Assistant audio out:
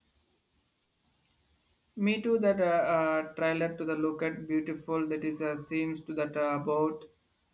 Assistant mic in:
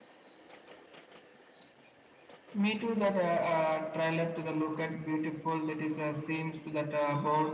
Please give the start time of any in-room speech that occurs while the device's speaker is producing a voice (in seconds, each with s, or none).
none